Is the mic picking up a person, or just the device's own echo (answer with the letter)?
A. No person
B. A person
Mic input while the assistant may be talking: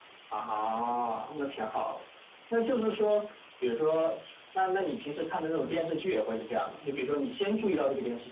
A